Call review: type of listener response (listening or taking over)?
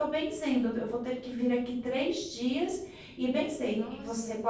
listening